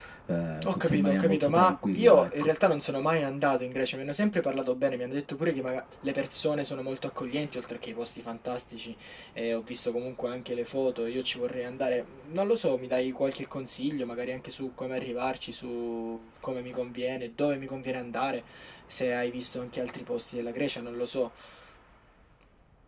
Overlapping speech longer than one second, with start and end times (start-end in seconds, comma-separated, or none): 0.7-2.5